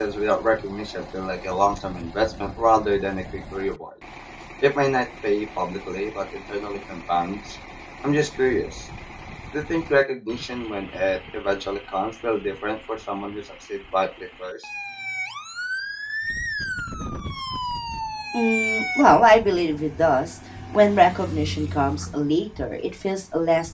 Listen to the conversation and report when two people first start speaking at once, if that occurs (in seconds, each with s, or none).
none